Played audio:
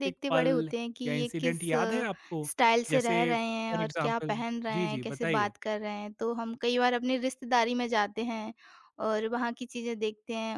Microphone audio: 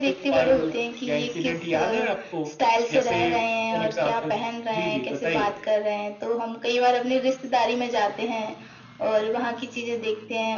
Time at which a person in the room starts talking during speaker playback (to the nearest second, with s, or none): none